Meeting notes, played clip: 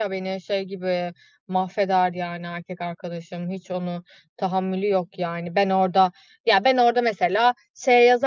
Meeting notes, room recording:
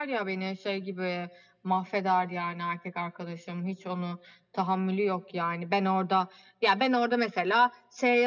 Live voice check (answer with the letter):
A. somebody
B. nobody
B